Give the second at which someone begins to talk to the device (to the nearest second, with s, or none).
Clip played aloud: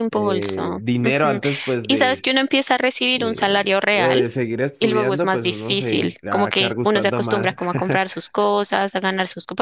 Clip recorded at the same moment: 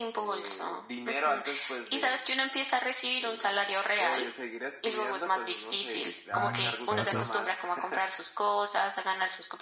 6 s